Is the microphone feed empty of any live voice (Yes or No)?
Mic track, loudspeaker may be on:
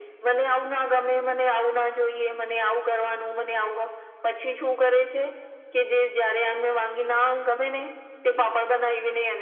Yes